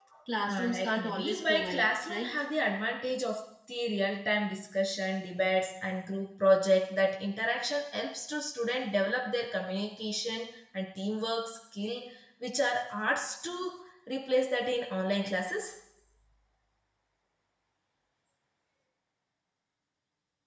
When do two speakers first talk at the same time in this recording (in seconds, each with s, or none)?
0.5 s